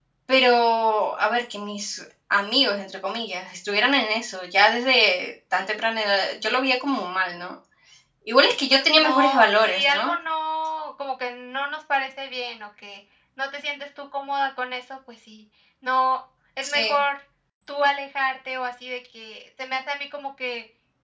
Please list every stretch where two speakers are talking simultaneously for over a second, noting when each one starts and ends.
8.4-10.1

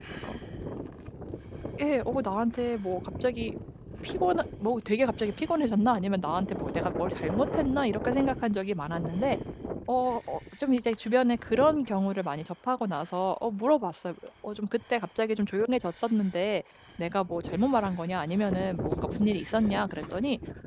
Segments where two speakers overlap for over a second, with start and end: none

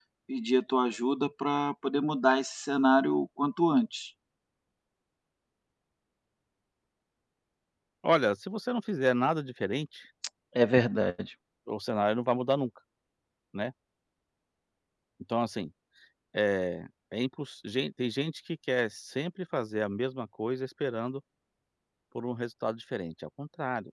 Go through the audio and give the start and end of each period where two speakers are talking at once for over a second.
none

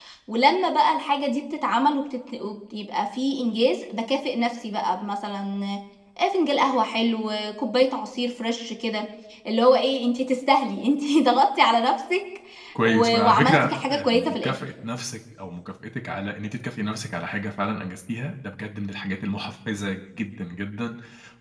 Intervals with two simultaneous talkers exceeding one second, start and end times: 12.8-14.5

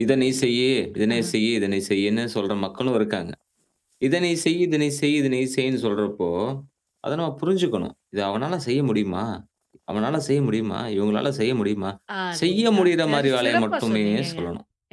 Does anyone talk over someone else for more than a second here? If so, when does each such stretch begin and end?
12.4-14.4

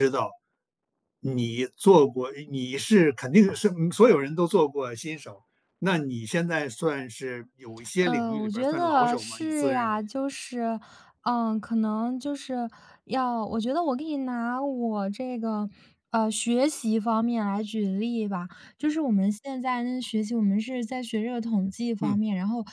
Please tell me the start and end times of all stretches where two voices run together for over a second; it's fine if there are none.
8.0-9.9

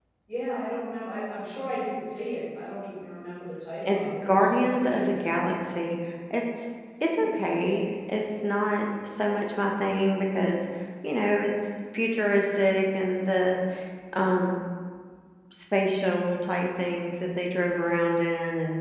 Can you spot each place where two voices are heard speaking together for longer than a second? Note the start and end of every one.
3.9-5.2

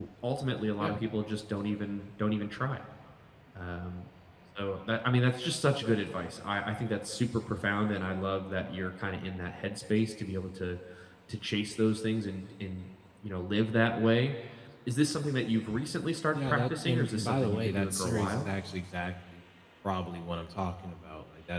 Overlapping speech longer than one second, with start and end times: 16.3-18.5

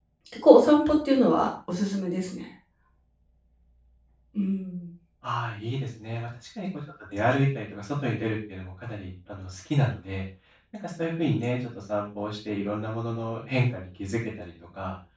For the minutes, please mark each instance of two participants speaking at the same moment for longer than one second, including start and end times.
none

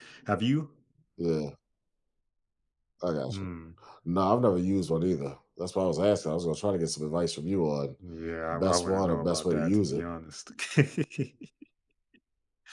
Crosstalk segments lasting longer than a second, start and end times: 8.5-10.0

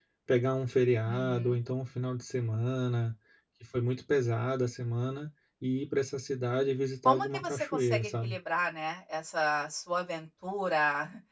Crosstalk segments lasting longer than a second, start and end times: 7.0-8.3

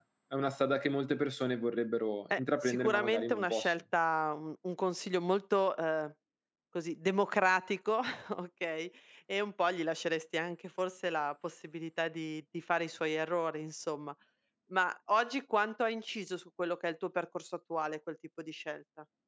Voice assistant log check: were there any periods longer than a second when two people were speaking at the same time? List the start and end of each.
2.4-3.7

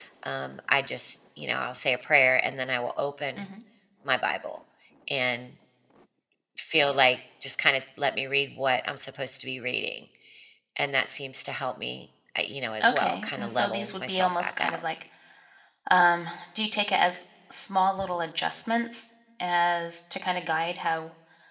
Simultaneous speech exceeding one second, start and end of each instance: 12.8-14.8

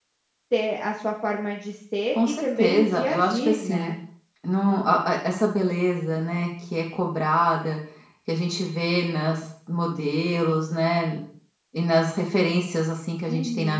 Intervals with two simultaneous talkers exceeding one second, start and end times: 2.1-4.0

